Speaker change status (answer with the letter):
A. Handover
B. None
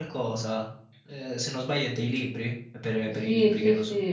A